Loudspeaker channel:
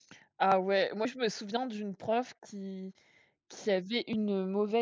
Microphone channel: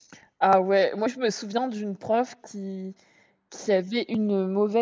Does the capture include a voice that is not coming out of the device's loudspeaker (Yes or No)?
No